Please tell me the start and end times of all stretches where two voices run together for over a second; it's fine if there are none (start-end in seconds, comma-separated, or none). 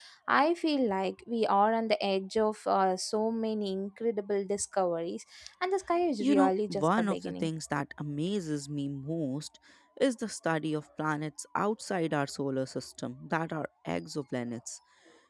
6.2-7.5